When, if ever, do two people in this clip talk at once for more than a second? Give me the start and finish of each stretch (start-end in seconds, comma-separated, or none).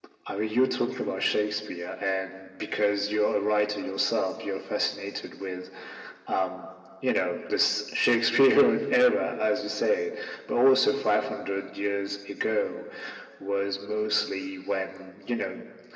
none